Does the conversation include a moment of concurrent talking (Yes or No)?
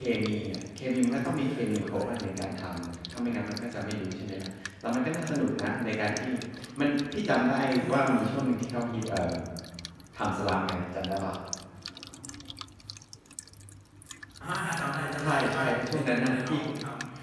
Yes